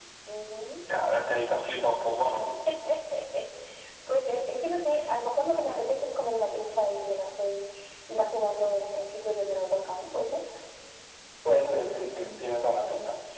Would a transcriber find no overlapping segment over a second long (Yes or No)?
Yes